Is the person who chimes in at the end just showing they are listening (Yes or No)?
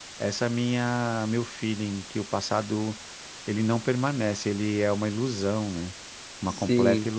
No